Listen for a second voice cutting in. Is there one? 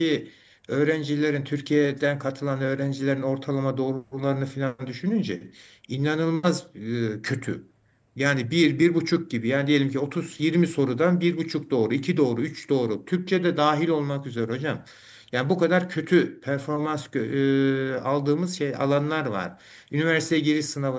No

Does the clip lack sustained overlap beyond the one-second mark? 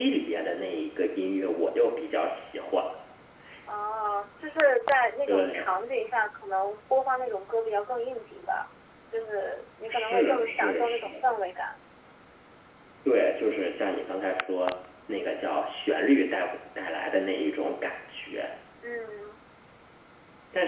No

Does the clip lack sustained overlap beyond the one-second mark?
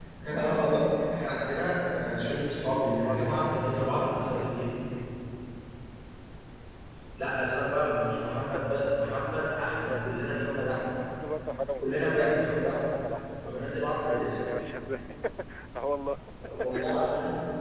No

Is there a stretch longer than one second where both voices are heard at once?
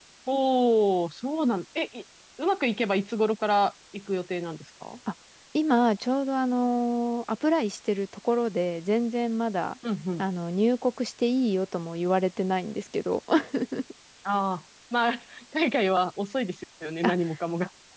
No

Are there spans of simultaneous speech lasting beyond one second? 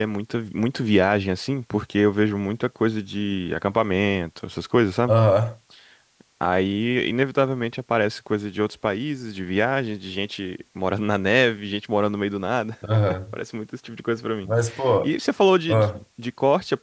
No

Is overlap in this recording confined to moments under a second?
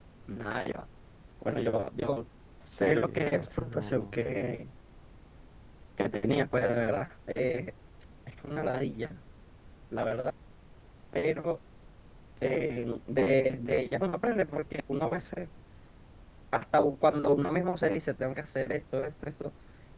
No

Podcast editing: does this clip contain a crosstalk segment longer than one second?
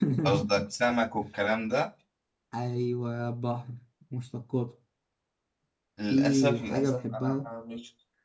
Yes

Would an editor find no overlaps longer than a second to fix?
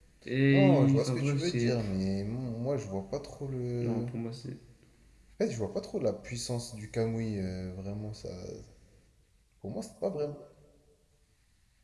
No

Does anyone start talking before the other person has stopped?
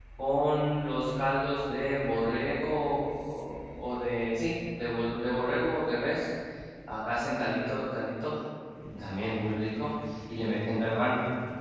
No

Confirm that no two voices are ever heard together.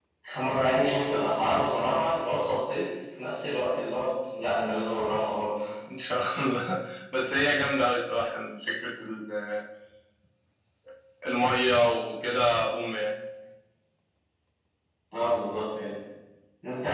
Yes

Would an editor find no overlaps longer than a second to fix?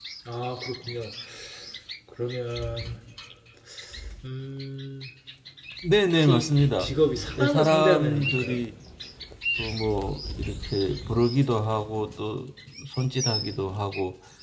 No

